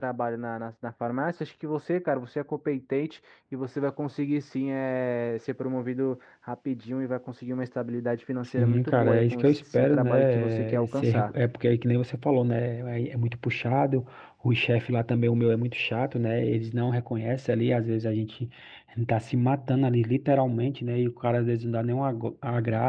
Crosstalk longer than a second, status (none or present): present